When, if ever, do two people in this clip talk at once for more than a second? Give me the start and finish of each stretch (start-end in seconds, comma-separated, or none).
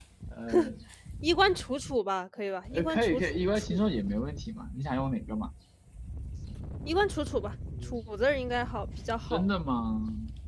2.7-4.0